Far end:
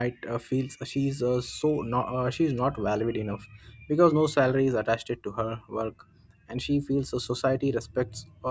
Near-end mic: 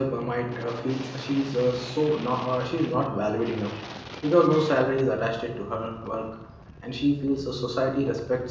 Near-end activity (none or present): none